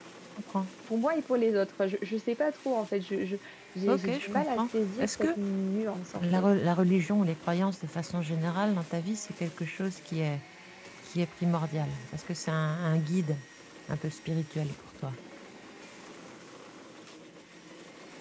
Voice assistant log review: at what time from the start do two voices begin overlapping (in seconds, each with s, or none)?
3.9 s